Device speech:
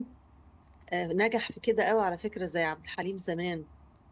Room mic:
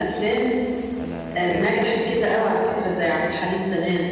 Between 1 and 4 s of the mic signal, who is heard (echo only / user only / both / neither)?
both